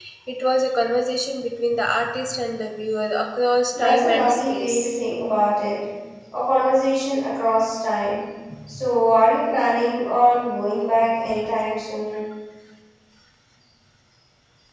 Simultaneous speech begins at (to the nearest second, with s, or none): 4 s